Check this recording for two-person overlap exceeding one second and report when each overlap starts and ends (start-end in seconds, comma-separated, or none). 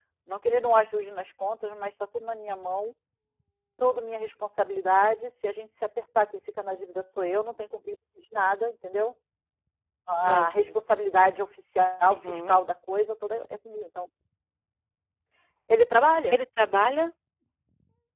none